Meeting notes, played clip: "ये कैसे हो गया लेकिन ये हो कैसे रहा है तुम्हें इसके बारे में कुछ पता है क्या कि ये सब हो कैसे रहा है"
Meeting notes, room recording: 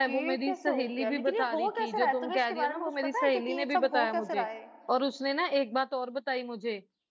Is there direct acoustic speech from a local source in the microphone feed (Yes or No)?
Yes